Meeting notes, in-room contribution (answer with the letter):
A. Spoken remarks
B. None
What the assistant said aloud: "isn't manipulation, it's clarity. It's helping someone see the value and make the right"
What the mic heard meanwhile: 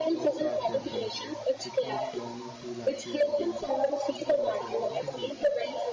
A